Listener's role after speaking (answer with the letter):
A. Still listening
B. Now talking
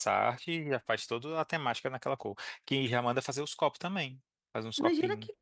B